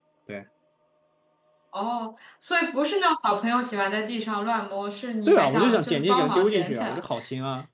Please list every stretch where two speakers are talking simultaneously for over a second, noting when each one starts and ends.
5.3-7.0

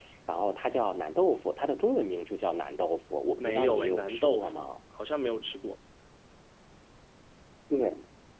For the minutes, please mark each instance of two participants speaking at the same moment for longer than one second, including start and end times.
3.4-4.6

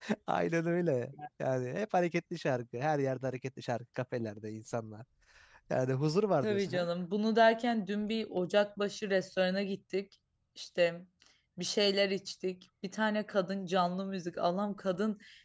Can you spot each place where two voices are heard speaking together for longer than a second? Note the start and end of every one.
none

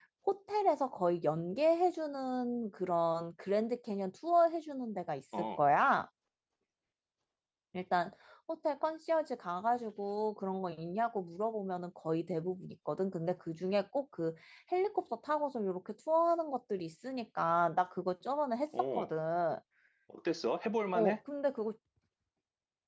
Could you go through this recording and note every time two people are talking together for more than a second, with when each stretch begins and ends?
none

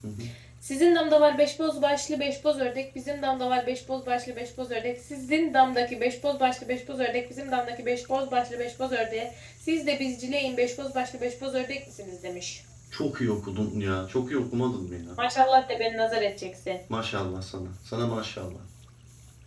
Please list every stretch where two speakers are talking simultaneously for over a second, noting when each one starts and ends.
none

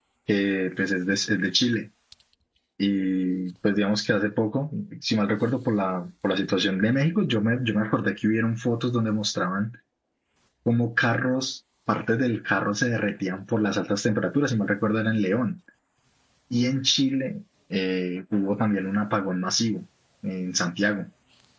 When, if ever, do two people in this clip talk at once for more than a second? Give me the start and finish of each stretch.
none

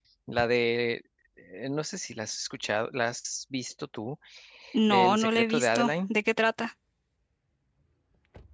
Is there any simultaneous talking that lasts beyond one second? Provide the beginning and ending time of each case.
4.9-6.1

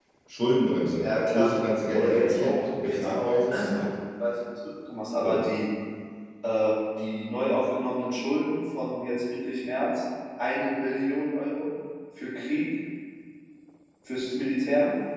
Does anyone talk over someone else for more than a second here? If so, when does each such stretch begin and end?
1.9-3.8

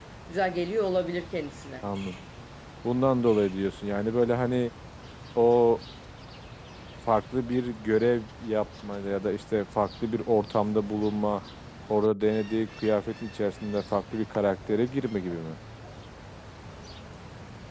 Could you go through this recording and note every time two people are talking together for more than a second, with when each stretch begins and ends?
none

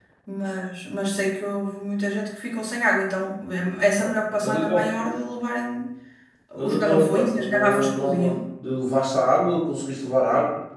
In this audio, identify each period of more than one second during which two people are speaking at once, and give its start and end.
6.6-8.4

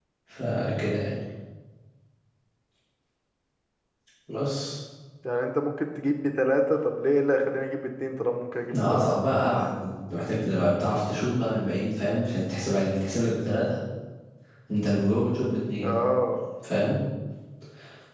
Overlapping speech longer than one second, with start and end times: none

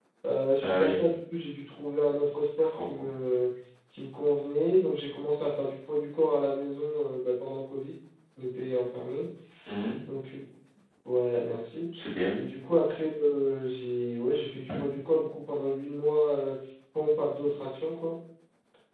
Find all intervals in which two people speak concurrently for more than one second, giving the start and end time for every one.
none

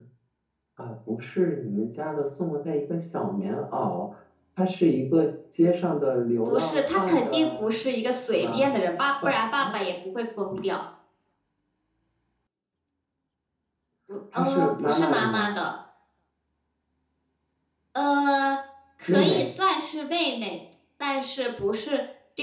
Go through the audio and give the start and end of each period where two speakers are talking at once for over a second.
6.5-7.7, 14.3-15.6

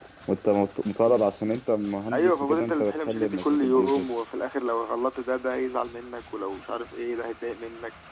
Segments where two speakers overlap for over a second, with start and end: 2.1-4.1

